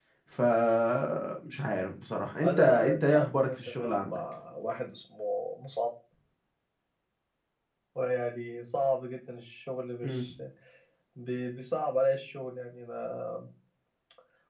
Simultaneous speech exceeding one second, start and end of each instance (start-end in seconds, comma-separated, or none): 2.4-4.2